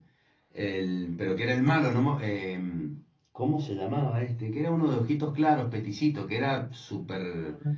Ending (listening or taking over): taking over